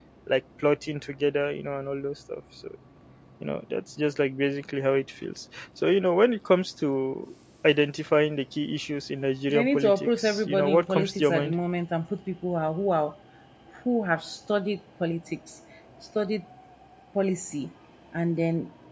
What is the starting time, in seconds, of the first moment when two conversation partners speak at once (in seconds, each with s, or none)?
9.5 s